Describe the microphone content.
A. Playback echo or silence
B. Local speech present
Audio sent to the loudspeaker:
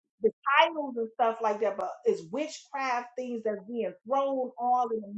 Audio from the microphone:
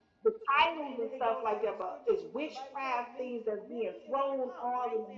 B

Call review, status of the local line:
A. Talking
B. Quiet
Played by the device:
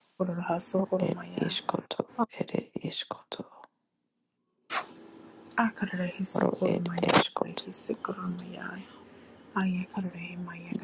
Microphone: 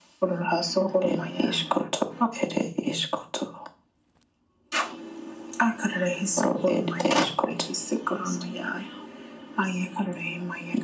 B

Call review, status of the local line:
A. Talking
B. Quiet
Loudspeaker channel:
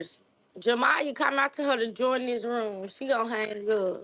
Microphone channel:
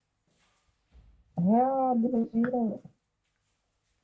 A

